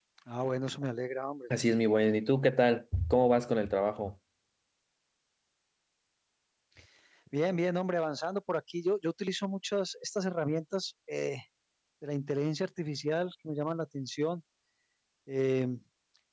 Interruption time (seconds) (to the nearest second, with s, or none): none